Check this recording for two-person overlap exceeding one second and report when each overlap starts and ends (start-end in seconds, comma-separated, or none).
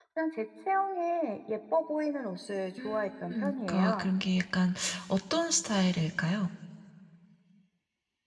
2.8-4.1